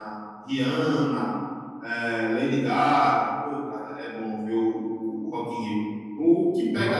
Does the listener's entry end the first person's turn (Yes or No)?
No